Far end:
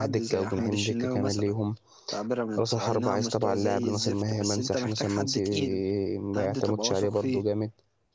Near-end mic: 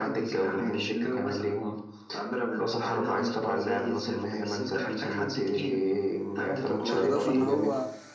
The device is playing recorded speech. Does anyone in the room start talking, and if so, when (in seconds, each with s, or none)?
6.8 s